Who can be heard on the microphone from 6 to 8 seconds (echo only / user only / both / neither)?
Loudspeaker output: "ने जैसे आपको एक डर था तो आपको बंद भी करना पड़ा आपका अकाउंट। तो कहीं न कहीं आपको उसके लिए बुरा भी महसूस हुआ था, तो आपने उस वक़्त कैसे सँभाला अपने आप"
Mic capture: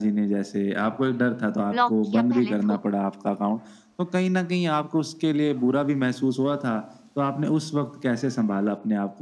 echo only